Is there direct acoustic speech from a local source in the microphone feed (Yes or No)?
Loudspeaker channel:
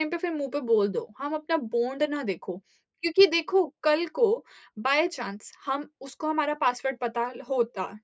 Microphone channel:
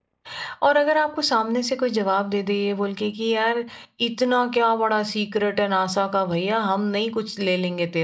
Yes